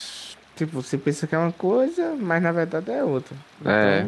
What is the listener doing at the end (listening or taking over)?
taking over